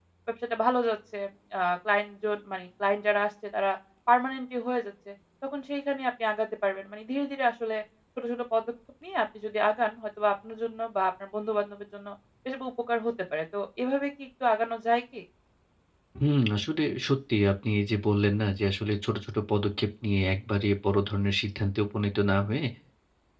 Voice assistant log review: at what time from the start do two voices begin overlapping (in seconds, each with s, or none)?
none